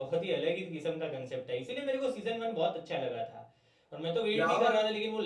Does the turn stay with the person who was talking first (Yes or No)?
Yes